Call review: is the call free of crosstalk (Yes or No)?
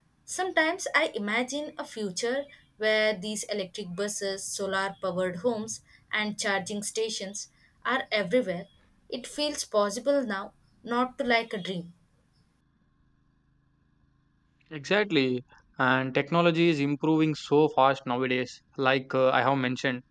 Yes